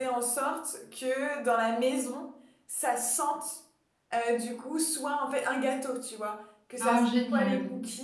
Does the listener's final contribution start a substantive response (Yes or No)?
No